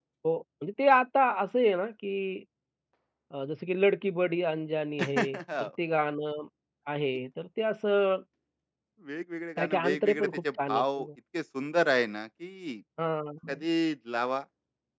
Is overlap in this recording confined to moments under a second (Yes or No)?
No